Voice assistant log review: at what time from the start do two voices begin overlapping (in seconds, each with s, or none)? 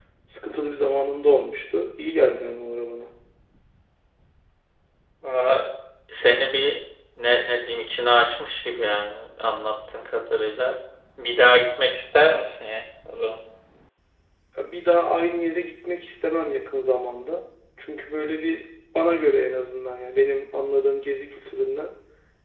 none